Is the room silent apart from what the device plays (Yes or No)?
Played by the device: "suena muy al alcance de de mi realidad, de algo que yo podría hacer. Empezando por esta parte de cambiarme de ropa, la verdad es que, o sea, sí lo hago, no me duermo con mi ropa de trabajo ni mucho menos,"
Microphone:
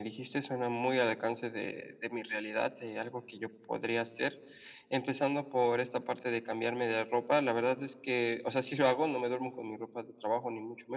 Yes